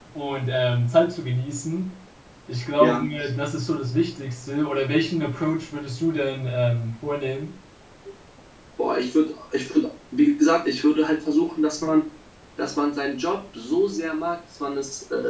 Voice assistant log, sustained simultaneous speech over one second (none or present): none